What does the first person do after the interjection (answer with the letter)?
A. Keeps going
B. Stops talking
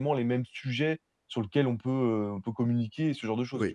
B